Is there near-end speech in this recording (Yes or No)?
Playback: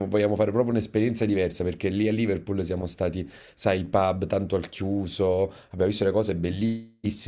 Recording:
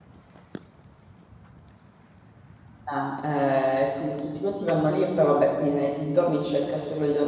Yes